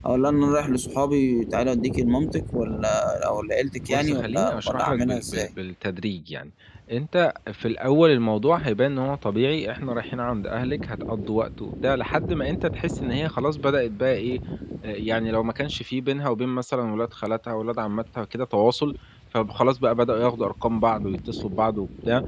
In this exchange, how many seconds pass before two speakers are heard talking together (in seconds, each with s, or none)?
3.9 s